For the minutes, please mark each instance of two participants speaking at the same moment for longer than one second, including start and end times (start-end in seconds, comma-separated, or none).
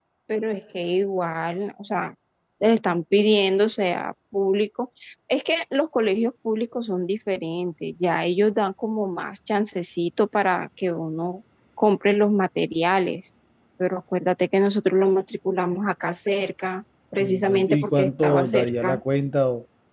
17.2-19.0